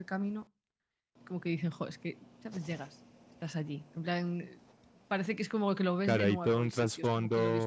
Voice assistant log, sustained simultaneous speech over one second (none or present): present